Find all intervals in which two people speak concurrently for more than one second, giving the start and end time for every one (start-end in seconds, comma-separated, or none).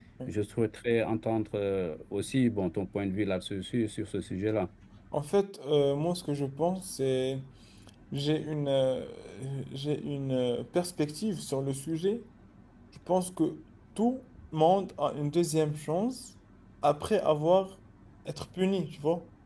none